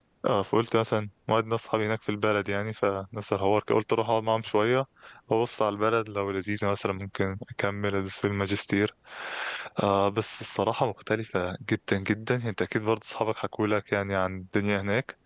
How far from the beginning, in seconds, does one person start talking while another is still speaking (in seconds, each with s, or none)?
none